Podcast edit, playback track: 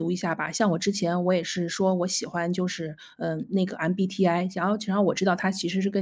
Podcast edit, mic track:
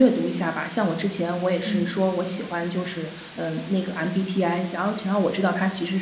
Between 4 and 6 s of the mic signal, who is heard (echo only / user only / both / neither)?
echo only